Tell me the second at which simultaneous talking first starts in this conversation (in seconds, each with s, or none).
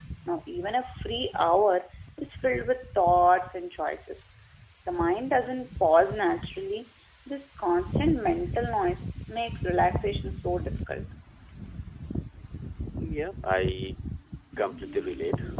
none